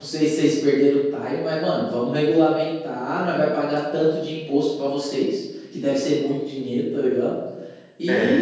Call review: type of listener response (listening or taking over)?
listening